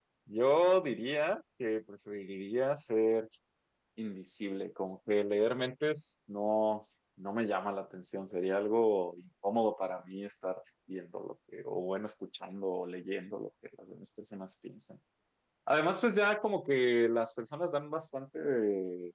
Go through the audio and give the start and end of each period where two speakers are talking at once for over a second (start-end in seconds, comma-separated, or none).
none